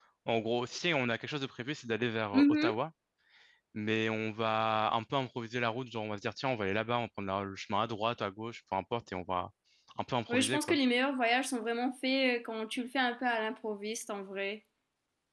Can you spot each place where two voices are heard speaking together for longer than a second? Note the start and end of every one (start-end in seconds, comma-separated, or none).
none